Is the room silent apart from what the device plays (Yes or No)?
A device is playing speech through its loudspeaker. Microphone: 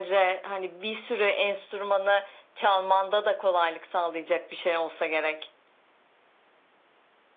Yes